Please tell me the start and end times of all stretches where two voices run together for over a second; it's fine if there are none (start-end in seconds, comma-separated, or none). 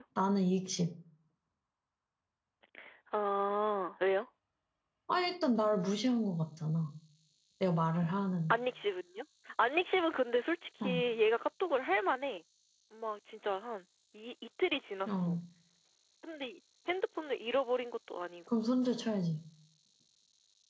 none